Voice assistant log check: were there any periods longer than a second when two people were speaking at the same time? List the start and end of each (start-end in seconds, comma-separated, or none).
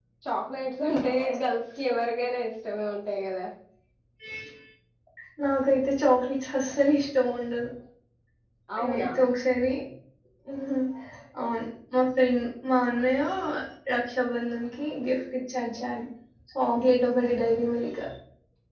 none